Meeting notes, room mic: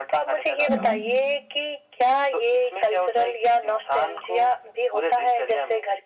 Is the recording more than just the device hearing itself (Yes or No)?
Yes